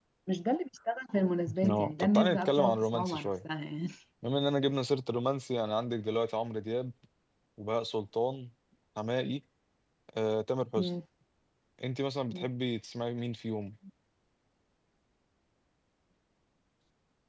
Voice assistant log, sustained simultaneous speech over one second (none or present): present